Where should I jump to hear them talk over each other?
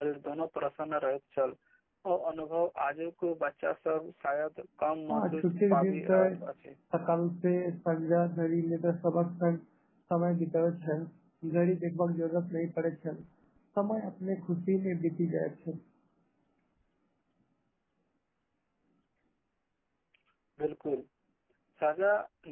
5.1 s

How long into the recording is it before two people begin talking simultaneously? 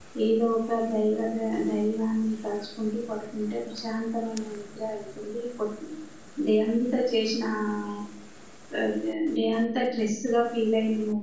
none

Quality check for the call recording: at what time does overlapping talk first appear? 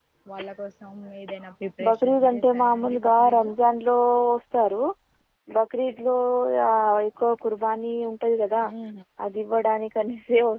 1.8 s

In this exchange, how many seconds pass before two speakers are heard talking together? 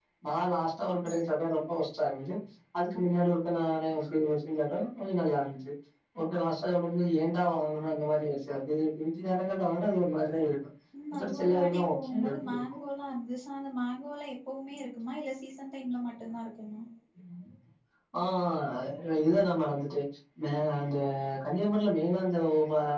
10.9 s

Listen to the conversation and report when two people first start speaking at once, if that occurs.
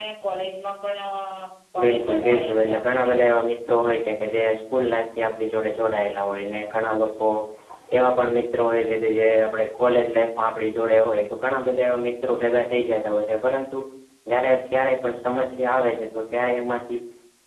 1.8 s

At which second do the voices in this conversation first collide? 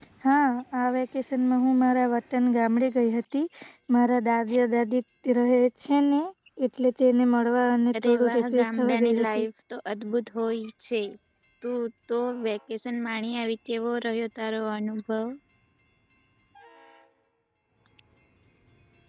7.9 s

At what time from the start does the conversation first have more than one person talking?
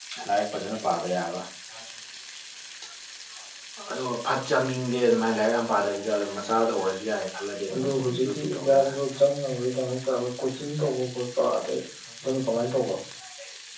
7.7 s

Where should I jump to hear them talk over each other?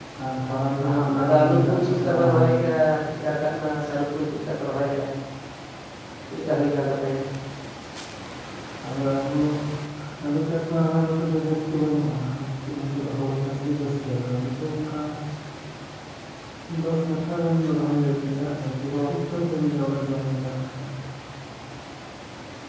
0.8 s

